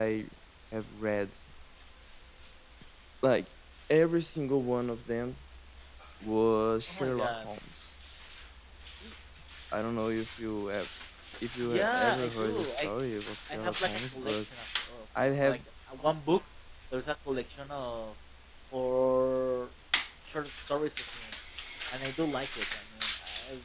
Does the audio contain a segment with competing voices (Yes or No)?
Yes